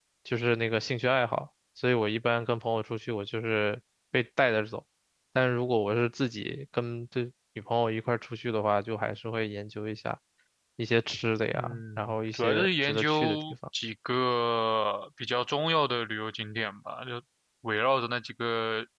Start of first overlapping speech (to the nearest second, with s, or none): 12 s